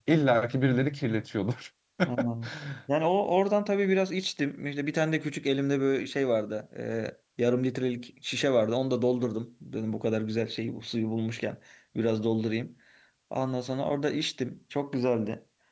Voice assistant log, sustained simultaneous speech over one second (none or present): none